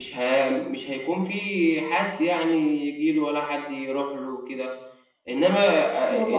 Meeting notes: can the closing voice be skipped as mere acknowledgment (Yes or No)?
Yes